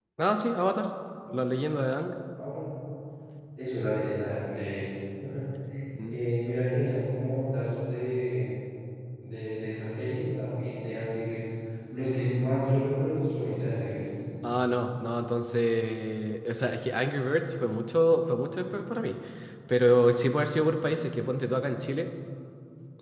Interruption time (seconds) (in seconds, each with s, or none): none